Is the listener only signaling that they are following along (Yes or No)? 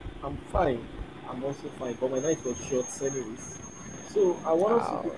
Yes